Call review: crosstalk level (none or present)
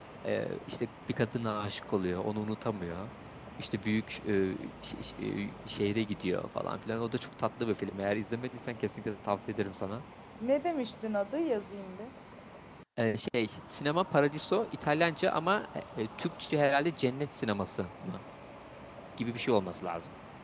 none